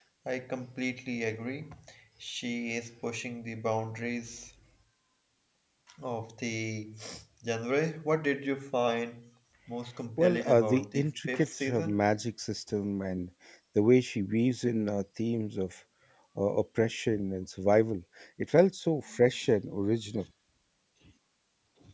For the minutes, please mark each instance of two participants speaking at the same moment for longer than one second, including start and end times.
10.2-12.0

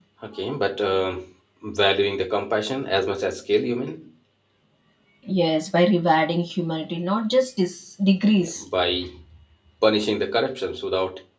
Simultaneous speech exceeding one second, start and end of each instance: none

